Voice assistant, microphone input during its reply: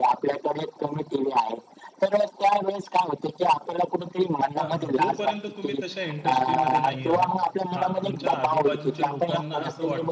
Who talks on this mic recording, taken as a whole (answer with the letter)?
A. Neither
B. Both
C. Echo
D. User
B